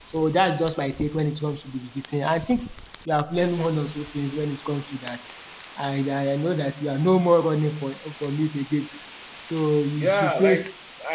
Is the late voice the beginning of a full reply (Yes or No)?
Yes